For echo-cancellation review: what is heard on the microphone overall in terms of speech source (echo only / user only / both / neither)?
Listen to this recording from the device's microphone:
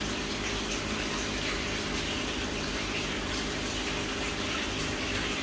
neither